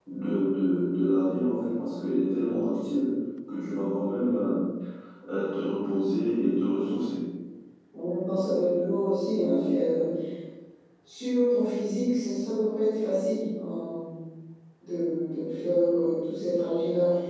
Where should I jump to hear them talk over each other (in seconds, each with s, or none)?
none